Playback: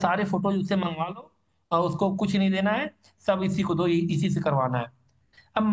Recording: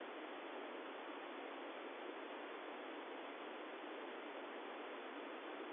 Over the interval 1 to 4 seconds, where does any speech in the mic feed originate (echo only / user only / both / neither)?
neither